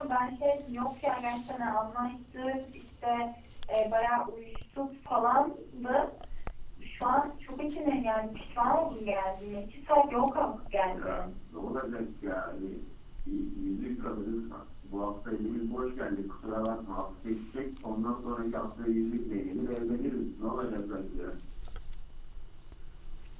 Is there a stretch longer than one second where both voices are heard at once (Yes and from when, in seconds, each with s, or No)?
No